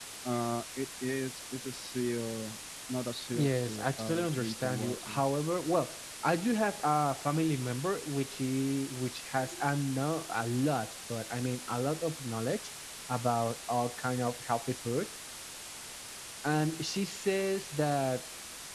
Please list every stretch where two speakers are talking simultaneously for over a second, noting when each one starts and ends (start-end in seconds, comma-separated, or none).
3.3-5.2